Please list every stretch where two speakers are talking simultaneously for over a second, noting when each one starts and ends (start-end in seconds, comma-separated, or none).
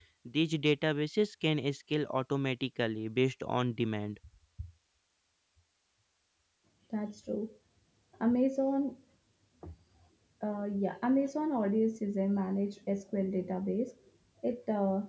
none